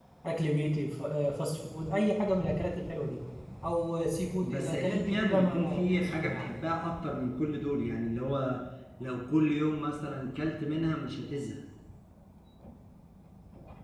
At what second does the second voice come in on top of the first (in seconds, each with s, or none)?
4.4 s